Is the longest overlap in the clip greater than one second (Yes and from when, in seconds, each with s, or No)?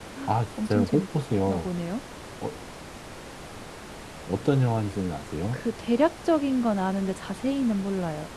No